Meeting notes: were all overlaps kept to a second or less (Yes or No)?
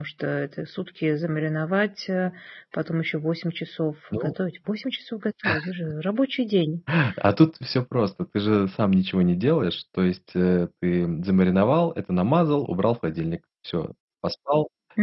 Yes